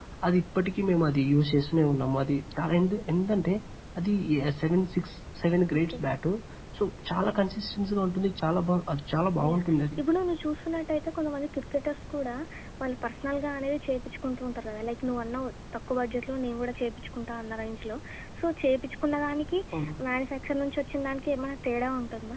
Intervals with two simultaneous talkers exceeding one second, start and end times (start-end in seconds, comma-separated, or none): none